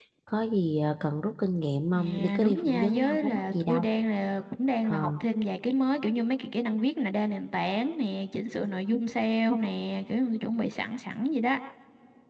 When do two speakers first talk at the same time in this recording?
2.0 s

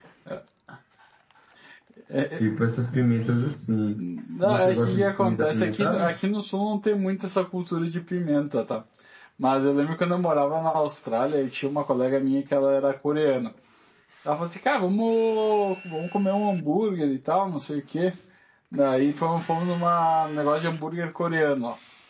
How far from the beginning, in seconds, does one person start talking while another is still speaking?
4.4 s

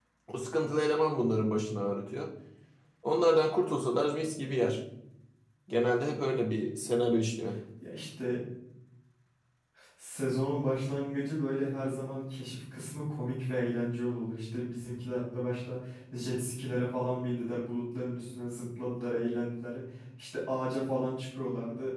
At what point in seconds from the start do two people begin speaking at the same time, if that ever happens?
none

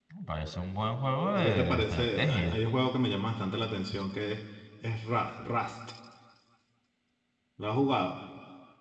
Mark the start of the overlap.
1.3 s

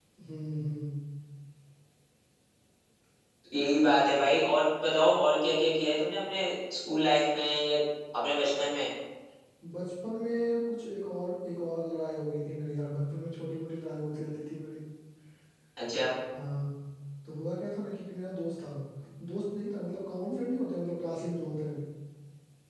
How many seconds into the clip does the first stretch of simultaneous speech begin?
none

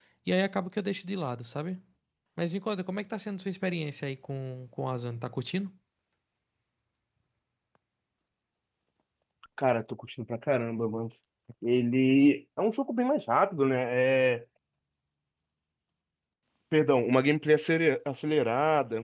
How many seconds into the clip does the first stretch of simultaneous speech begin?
none

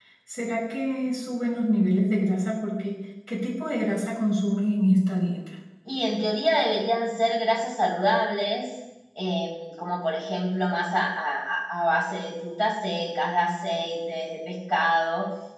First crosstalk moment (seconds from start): none

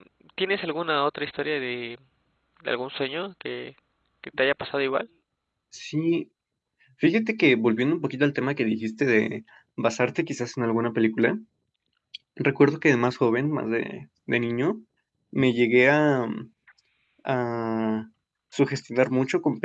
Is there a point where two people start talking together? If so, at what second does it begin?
none

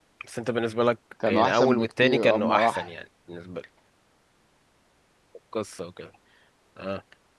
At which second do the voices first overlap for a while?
1.3 s

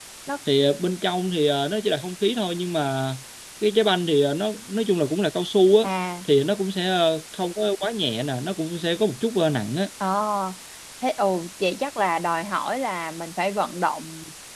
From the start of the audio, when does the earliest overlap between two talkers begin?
none

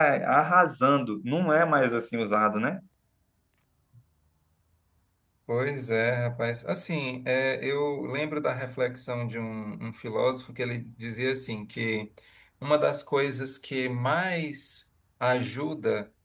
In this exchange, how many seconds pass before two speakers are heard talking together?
none

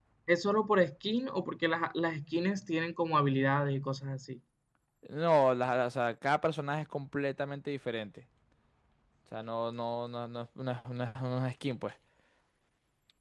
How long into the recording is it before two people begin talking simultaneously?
none

